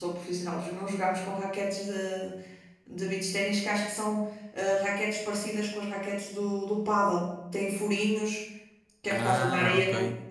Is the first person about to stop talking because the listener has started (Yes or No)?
No